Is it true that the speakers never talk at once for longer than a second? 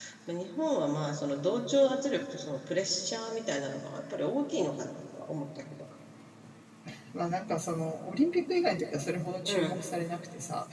Yes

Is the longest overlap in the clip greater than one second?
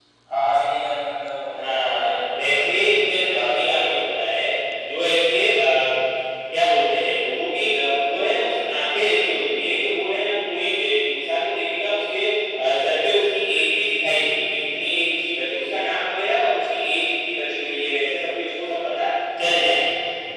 Yes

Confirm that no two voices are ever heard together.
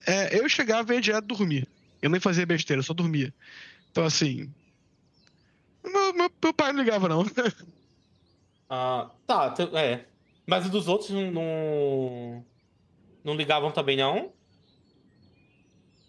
Yes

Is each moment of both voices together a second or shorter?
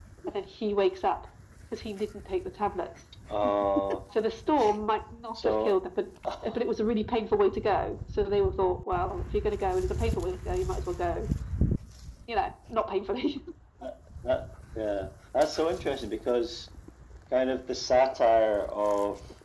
Yes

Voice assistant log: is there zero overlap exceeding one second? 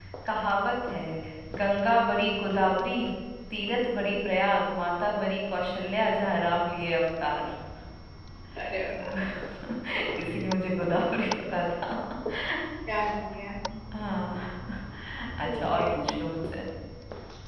Yes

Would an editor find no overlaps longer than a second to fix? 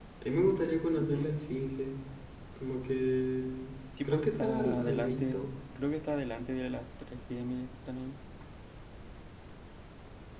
No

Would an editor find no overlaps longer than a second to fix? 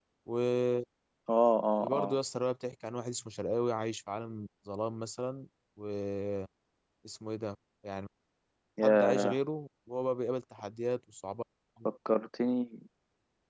Yes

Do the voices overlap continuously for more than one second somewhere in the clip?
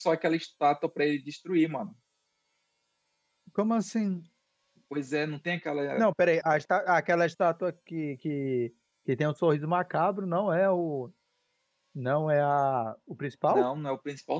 No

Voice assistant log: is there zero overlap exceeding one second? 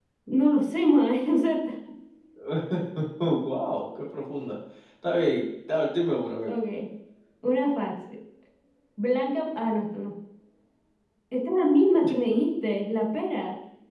Yes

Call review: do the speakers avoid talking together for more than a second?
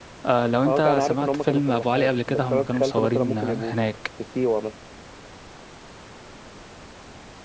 No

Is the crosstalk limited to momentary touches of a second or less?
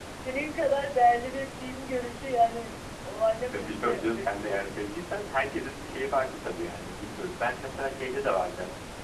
No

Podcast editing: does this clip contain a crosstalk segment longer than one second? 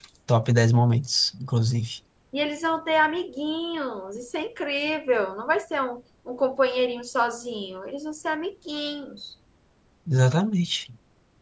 No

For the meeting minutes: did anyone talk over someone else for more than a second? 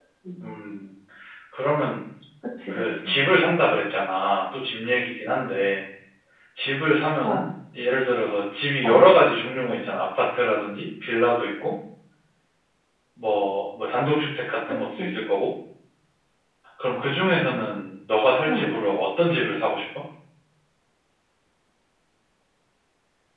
No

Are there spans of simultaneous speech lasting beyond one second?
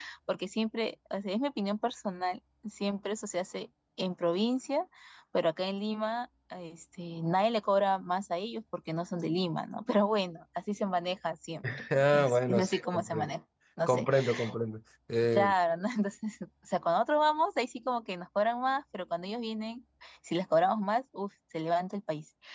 Yes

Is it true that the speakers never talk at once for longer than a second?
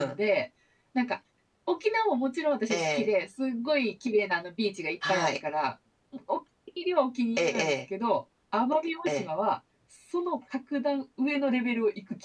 Yes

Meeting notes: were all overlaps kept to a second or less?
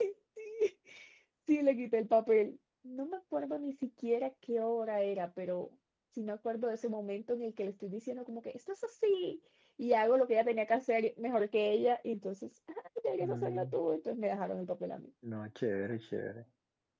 Yes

